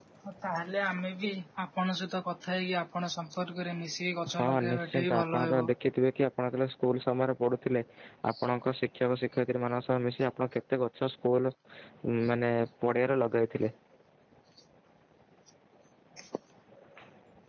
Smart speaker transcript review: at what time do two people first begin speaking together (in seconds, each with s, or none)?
4.3 s